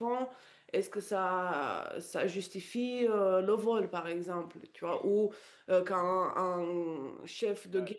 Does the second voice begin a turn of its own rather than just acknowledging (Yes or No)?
No